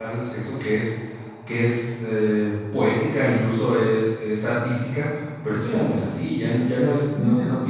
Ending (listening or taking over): listening